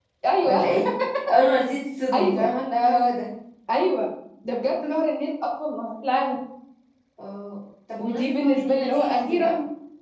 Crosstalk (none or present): present